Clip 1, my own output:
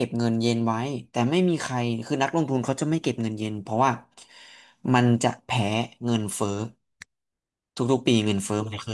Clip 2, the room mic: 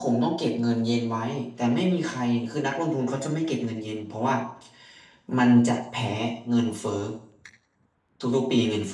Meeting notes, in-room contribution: none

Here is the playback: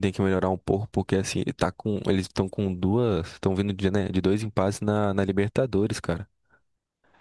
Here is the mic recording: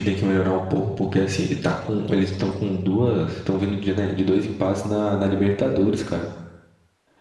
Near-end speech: none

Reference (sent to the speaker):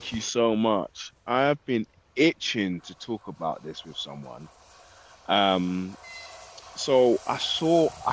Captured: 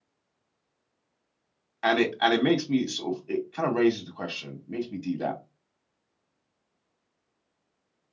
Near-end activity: present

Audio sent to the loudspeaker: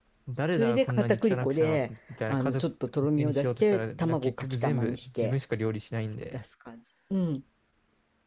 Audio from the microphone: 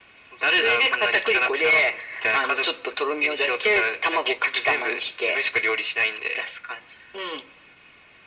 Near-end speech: none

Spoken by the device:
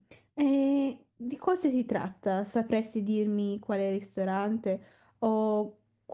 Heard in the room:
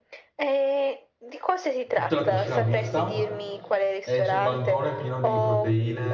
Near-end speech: present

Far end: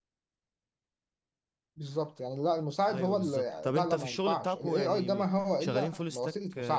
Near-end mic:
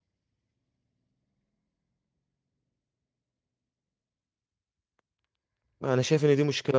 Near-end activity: present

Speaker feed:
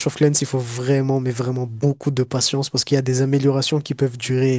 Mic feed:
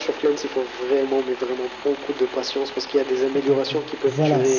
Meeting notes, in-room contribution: present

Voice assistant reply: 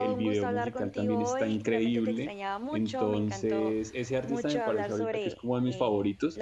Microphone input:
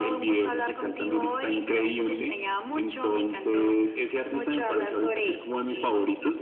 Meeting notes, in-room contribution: none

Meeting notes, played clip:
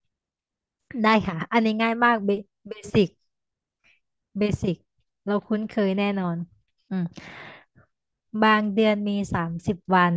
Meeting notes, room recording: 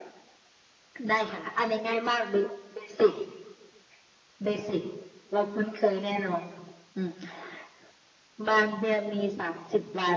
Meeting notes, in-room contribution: none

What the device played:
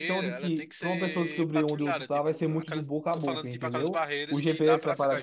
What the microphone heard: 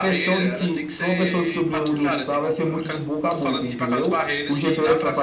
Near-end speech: none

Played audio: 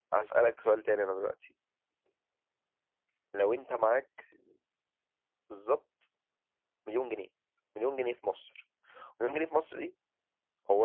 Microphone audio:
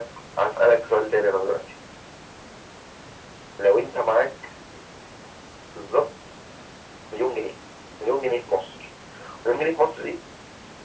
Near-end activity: none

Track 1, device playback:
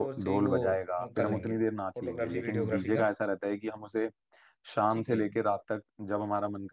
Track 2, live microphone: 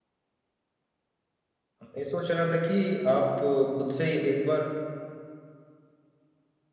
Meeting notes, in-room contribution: present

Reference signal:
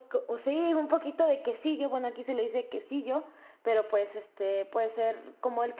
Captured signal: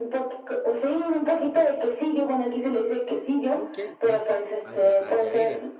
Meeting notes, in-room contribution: present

